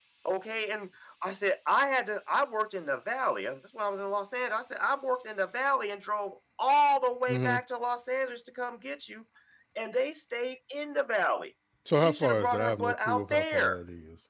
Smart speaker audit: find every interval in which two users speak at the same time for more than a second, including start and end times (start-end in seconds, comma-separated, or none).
11.9-13.8